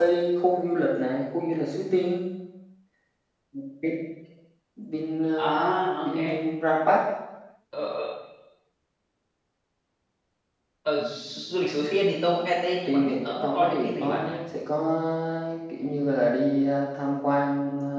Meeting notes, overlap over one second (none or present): present